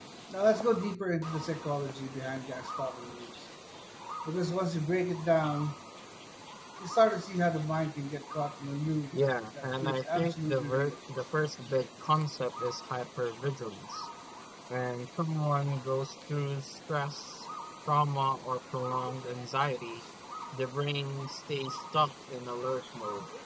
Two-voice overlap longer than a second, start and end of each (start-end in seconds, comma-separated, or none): 9.6-10.9